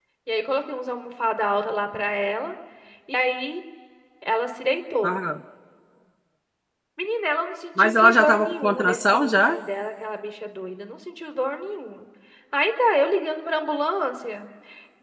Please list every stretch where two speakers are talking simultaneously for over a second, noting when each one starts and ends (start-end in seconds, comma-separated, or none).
7.8-9.6